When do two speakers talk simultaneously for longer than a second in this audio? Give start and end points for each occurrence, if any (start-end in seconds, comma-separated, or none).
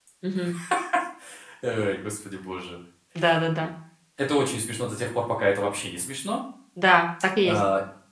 none